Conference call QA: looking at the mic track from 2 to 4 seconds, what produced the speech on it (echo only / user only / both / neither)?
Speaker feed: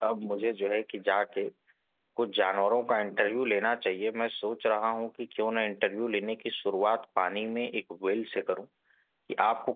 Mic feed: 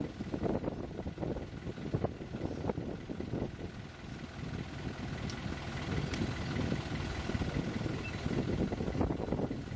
neither